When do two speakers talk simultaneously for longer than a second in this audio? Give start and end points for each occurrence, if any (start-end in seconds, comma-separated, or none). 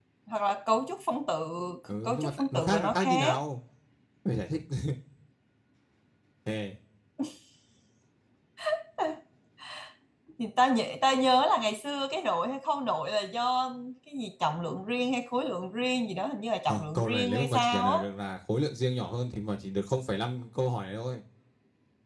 2.0-3.4, 16.7-18.0